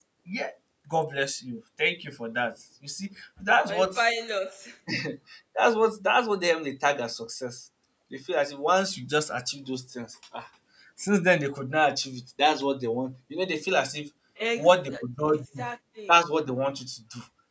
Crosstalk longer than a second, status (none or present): none